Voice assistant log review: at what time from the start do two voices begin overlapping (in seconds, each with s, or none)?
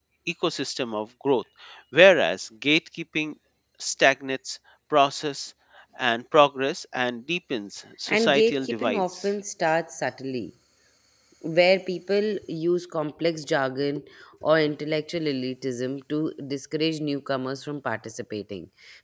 8.1 s